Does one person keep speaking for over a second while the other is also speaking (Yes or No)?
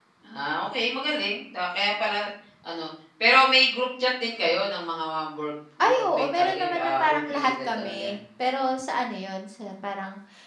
Yes